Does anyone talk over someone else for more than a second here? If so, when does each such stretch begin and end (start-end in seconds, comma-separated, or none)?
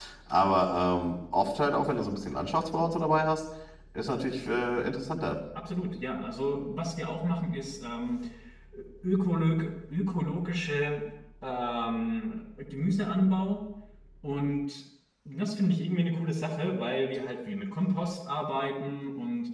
none